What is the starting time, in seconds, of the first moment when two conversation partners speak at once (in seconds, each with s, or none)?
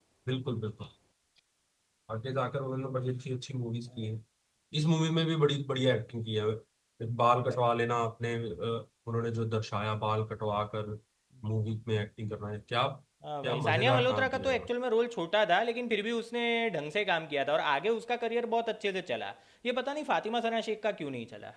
13.4 s